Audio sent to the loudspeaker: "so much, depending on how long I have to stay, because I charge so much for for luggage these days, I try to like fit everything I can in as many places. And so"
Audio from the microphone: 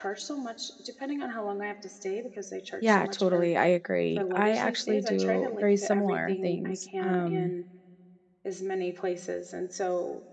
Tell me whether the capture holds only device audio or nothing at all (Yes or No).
No